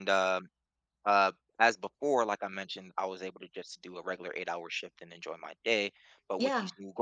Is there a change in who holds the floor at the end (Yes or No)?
No